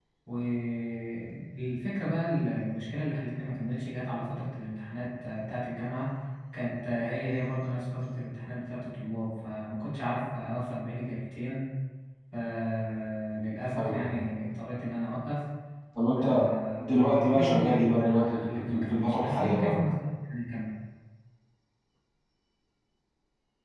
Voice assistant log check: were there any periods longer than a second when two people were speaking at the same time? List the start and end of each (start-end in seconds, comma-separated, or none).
16.8-19.7